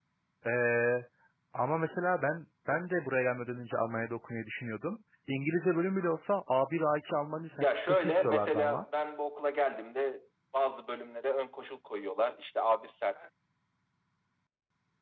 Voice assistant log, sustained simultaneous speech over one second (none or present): present